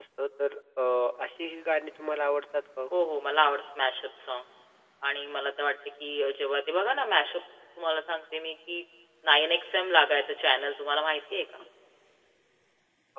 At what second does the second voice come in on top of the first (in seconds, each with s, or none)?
none